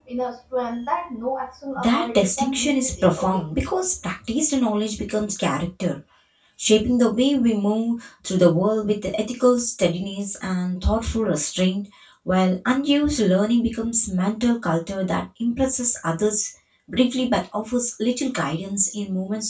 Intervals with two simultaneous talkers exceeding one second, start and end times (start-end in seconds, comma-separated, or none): 1.8-3.4